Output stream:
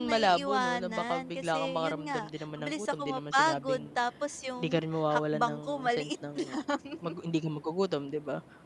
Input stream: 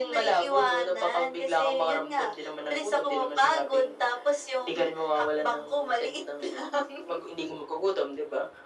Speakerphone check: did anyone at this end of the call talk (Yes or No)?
No